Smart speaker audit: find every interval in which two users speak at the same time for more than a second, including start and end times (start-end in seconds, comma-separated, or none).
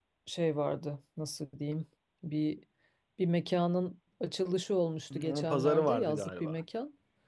5.2-6.6